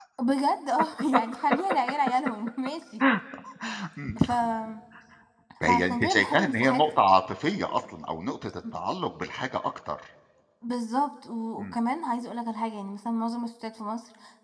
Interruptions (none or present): present